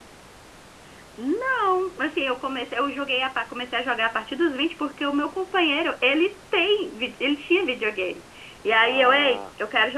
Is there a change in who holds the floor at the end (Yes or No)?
No